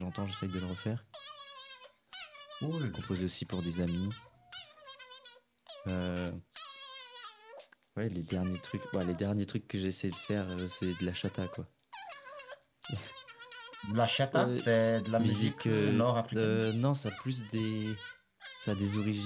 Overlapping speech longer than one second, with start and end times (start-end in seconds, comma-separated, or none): 15.2-16.7